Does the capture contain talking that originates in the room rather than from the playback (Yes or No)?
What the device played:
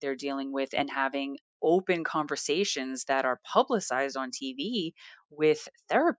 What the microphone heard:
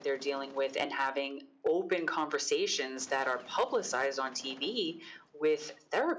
No